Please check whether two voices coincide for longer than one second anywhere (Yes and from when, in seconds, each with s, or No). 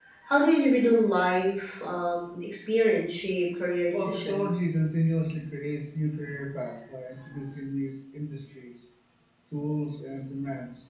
No